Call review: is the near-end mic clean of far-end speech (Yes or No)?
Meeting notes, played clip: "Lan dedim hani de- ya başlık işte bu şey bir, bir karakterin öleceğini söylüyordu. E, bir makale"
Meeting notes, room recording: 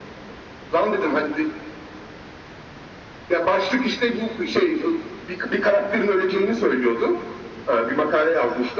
No